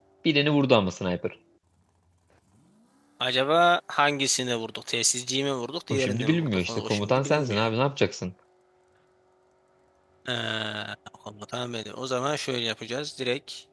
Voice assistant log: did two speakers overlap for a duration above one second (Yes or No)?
Yes